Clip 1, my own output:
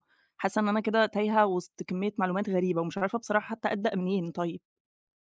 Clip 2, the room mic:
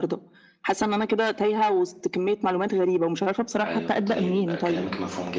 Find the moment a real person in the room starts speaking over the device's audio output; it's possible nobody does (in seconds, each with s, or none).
3.6 s